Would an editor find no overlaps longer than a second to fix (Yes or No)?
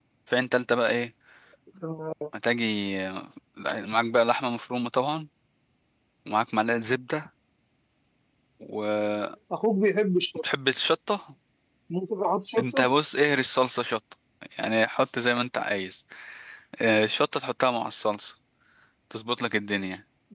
Yes